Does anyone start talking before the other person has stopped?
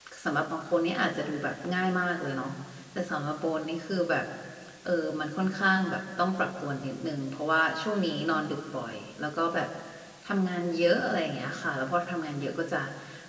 No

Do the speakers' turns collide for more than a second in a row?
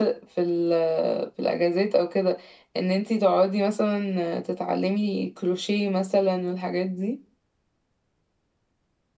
No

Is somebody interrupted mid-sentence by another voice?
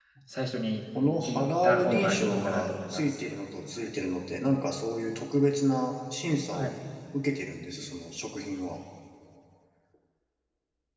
Yes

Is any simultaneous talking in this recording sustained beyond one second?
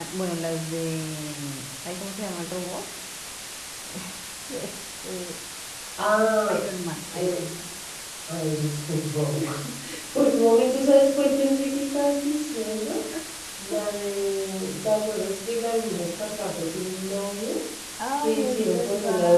Yes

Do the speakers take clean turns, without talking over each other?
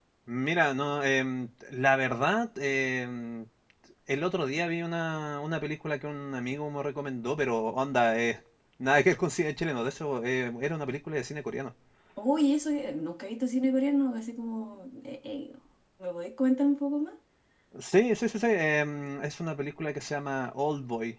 Yes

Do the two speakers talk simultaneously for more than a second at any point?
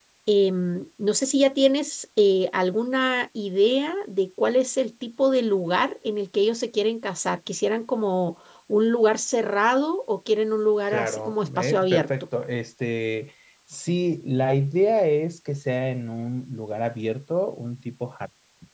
Yes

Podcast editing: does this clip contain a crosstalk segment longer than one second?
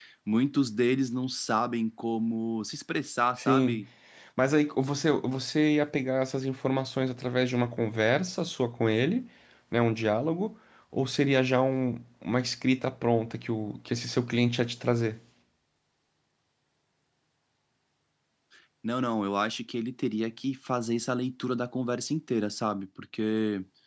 No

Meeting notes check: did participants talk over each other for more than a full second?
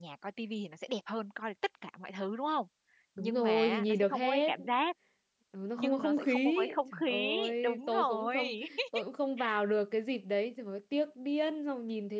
Yes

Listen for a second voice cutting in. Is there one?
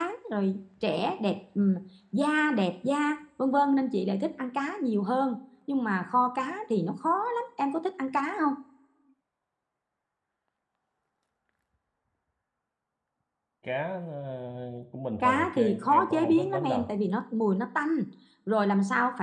Yes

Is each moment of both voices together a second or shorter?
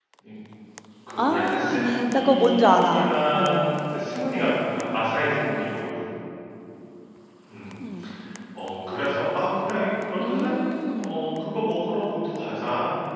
No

